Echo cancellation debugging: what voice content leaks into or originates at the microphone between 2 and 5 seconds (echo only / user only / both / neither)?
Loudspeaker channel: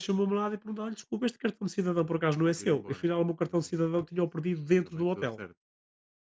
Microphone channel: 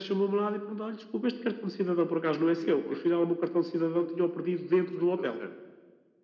echo only